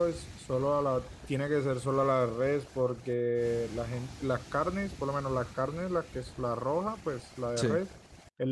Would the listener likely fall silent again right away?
Yes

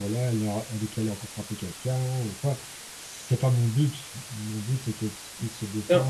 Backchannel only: No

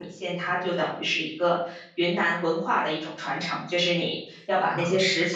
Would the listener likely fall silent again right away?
Yes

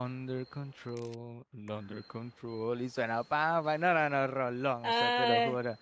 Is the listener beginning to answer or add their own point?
No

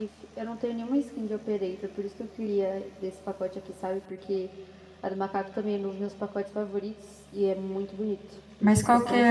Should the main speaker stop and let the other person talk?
Yes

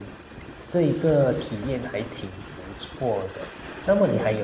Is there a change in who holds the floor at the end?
No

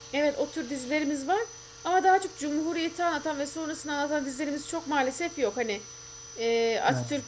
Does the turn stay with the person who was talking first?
Yes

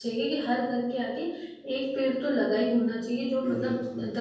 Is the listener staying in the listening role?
Yes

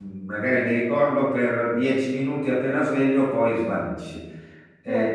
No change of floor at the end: No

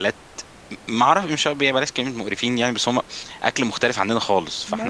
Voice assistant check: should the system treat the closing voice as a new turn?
Yes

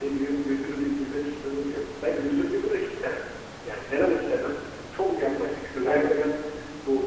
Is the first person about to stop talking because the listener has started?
No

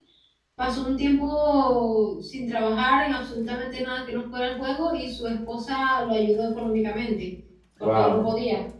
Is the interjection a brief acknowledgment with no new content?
Yes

